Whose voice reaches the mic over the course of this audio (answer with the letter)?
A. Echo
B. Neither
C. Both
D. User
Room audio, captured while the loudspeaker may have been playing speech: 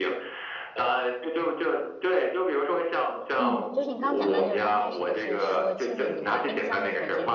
C